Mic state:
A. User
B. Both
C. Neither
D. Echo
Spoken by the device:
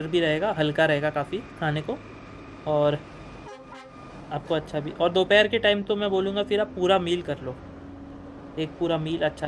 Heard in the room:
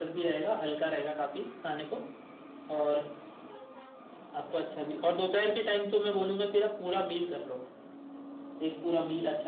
D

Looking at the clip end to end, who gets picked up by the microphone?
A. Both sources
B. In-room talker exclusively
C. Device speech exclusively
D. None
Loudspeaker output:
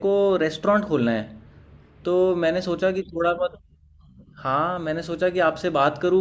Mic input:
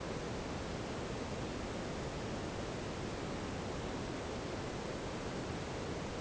D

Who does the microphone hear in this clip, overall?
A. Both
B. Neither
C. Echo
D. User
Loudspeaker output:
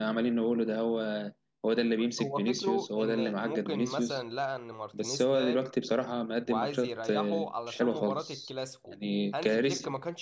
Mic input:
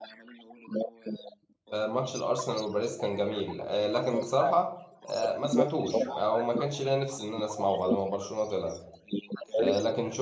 A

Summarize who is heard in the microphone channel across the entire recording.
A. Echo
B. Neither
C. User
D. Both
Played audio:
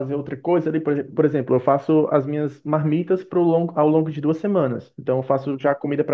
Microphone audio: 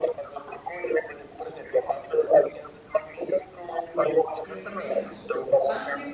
D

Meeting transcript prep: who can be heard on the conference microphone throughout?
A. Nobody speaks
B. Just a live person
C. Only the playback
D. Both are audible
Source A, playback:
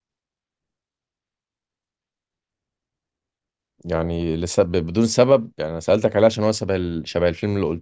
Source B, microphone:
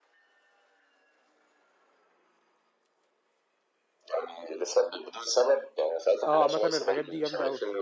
D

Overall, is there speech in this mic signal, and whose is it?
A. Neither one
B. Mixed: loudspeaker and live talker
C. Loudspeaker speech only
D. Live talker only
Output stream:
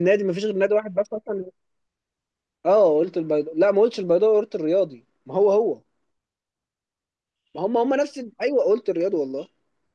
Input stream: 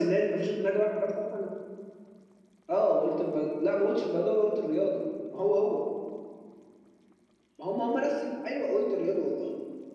C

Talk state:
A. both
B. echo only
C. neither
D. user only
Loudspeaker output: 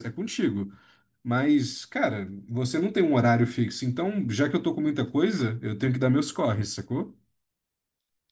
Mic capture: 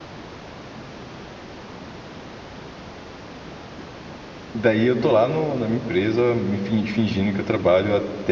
D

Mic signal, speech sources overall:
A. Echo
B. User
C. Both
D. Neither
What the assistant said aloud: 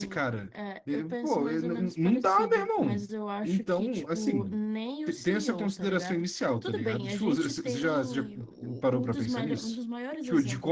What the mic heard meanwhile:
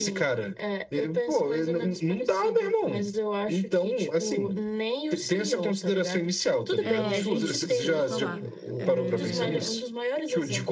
C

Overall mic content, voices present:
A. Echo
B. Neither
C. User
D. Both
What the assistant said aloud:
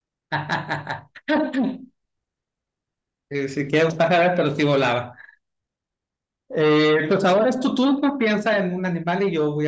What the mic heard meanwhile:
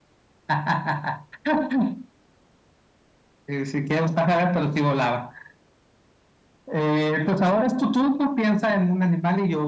A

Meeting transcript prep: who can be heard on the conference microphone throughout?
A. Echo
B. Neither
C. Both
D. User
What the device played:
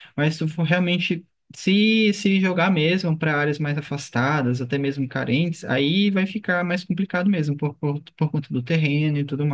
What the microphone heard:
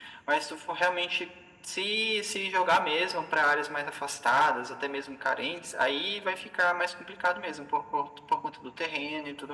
A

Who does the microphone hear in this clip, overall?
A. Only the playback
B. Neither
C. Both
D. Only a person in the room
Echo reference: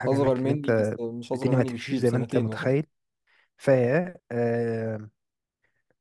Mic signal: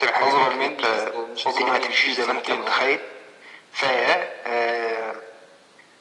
A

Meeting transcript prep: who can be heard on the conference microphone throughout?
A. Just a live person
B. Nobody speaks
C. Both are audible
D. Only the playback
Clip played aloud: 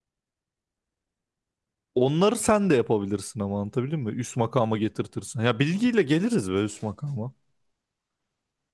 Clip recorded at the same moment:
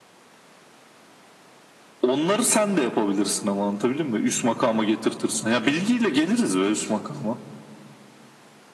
D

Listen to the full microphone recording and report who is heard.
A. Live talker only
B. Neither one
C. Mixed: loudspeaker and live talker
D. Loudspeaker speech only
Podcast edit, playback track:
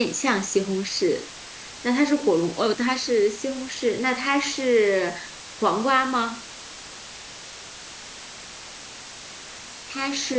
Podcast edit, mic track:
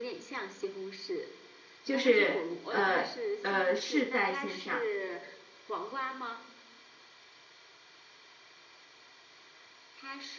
C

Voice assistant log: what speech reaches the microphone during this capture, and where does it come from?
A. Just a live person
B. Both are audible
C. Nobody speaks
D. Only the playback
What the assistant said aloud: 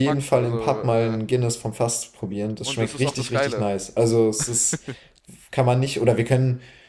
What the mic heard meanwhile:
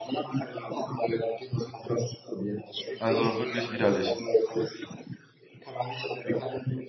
B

